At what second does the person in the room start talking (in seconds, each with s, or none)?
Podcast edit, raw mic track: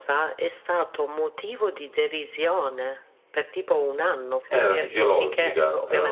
4.5 s